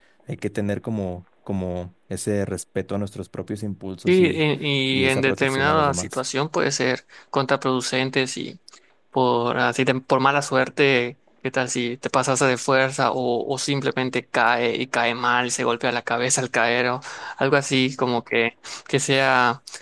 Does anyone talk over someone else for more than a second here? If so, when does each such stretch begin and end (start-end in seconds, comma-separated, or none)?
4.9-6.2